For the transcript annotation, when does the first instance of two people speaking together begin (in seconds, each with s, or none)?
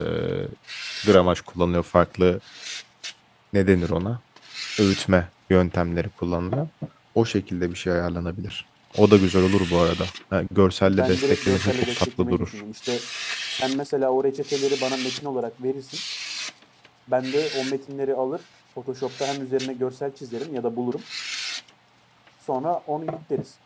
10.8 s